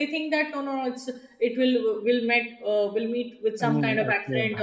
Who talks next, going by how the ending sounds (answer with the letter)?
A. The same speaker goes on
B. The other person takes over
A